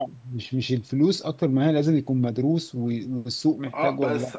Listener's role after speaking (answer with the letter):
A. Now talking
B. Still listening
A